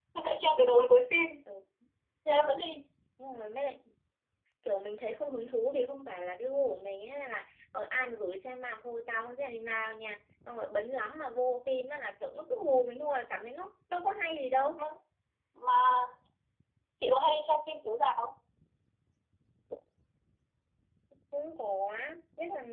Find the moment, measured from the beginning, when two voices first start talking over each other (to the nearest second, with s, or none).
none